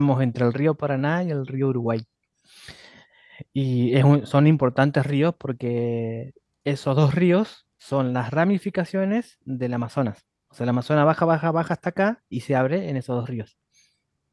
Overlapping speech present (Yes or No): No